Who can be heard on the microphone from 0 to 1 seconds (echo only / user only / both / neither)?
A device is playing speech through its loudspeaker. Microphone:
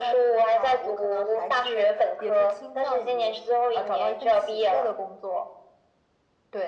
echo only